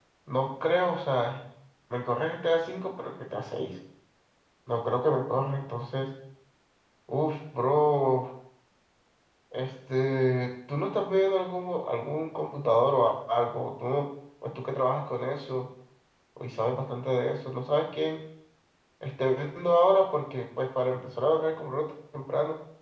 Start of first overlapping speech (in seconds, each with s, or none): none